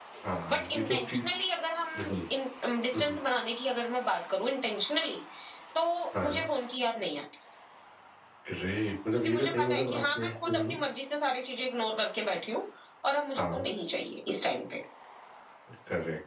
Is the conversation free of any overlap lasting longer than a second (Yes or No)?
No